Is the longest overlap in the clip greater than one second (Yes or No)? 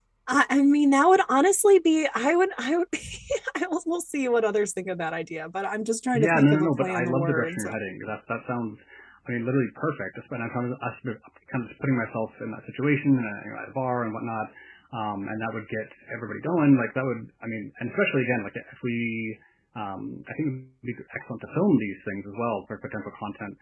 Yes